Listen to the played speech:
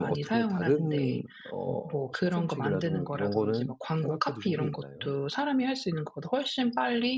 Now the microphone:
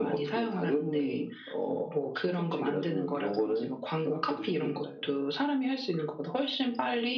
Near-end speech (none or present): none